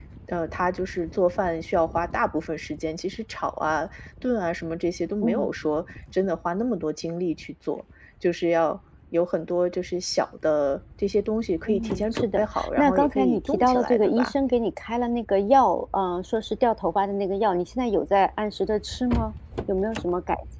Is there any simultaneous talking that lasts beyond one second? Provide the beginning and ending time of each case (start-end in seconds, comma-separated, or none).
11.7-14.3